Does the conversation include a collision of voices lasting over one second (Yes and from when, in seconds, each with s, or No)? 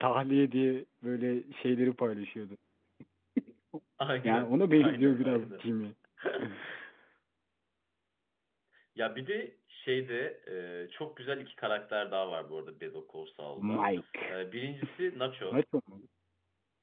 Yes, from 4.2 s